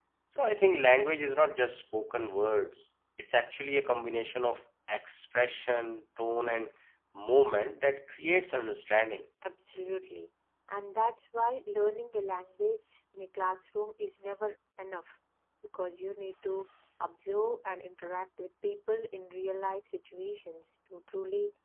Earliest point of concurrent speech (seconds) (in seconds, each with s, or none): none